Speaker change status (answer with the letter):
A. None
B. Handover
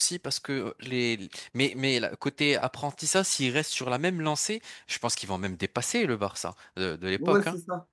B